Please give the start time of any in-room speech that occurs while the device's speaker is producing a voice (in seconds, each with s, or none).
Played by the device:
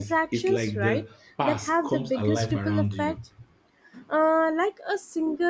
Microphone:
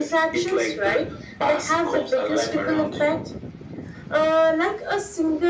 none